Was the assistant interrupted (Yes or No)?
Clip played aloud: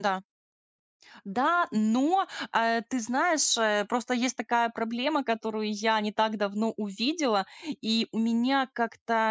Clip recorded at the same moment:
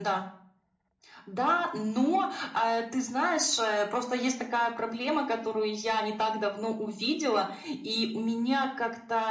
No